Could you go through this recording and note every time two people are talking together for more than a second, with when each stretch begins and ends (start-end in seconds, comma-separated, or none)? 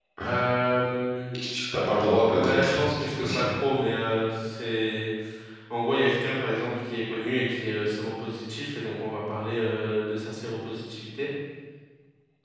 2.3-3.5